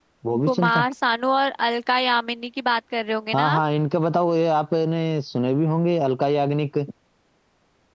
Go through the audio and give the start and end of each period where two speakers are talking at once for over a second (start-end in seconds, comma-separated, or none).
none